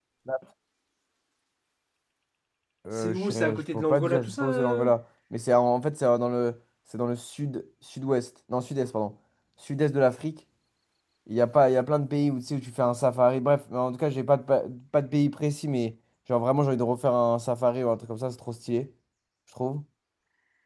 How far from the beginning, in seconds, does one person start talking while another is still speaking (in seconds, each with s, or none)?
3.0 s